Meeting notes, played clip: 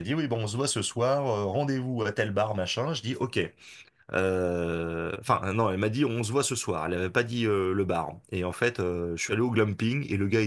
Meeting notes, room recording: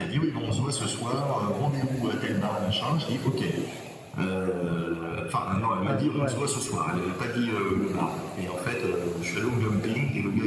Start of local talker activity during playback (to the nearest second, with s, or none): 6 s